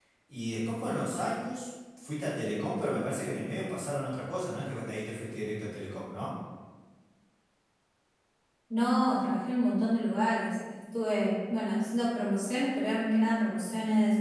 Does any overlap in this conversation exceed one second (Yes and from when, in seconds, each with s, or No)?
No